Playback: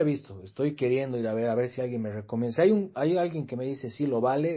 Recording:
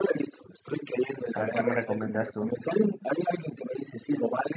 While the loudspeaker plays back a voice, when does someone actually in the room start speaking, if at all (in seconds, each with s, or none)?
1.3 s